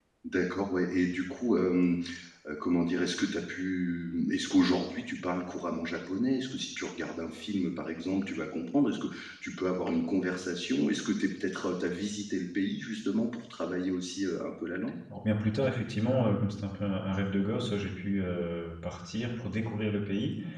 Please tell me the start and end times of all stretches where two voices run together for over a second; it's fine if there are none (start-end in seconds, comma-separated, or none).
none